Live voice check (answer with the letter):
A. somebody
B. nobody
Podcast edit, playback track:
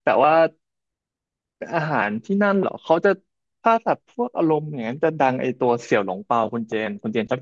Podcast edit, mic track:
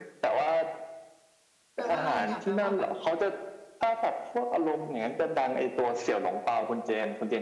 A